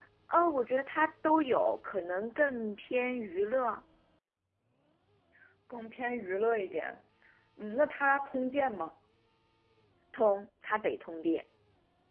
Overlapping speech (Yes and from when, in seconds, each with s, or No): No